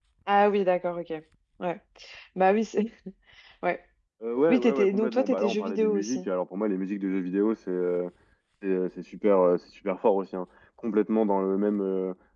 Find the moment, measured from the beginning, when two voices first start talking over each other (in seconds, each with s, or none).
4.5 s